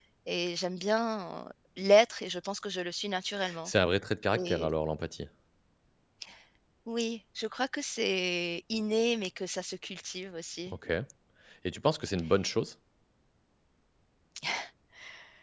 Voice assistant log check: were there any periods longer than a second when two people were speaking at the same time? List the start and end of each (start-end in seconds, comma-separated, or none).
none